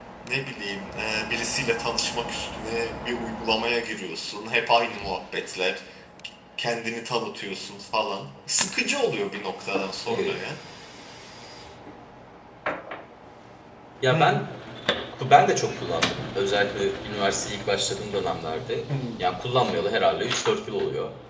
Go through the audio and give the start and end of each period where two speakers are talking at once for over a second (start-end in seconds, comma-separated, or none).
none